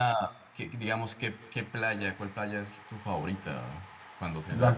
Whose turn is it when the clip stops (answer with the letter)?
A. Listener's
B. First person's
A